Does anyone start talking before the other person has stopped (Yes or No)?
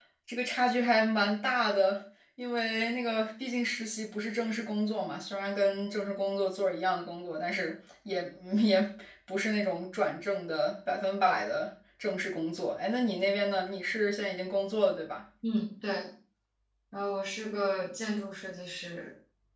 No